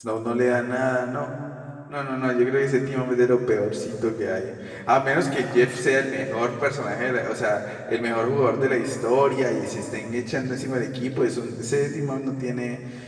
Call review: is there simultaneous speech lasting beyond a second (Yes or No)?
No